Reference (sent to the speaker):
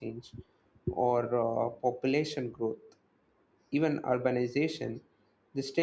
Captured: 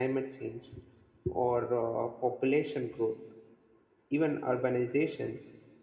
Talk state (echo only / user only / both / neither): echo only